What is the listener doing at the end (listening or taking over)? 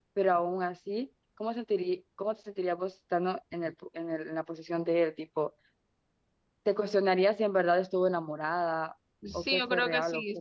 taking over